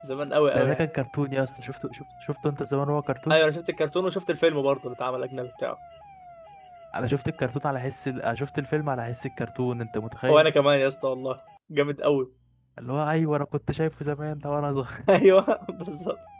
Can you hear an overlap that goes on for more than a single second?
No

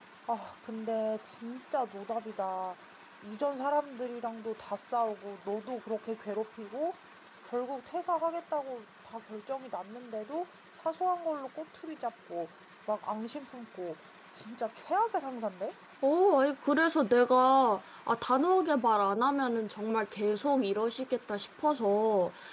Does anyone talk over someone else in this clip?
No

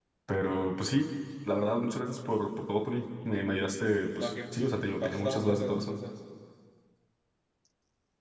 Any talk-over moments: Yes, from 4.2 s

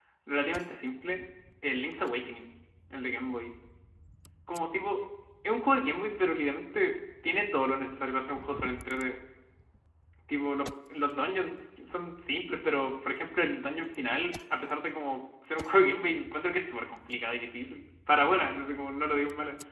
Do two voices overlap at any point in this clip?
No

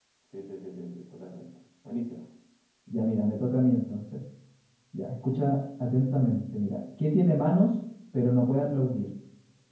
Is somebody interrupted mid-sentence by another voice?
No

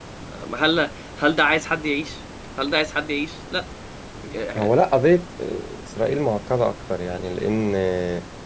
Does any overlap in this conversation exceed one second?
No

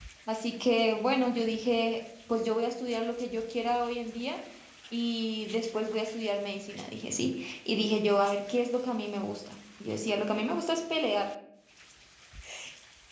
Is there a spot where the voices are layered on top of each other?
No

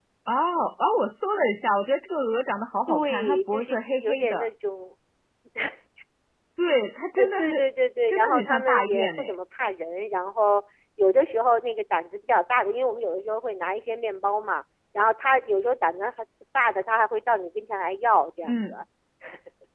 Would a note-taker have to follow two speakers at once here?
Yes, from 2.9 s

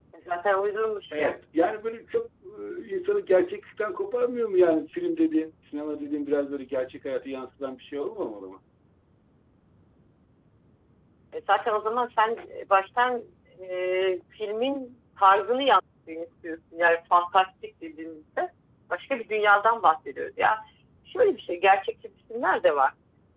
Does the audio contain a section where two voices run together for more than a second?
No

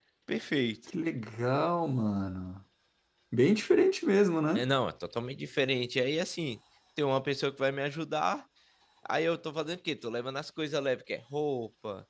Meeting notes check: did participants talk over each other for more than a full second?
No

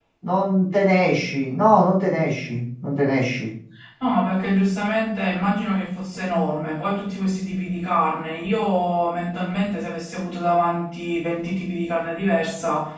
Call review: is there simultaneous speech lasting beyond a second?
No

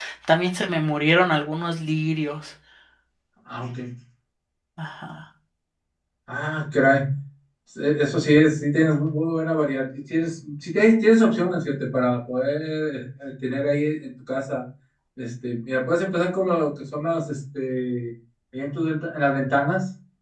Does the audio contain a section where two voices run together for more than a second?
No

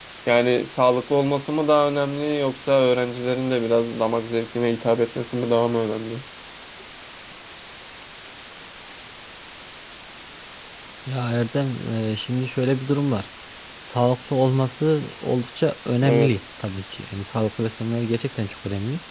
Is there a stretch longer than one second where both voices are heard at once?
No

